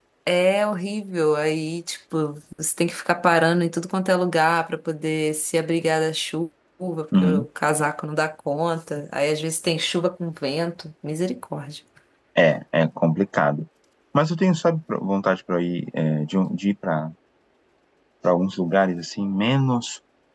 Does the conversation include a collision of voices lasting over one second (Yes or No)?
No